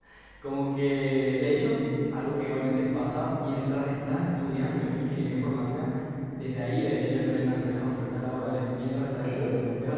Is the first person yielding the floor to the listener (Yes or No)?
Yes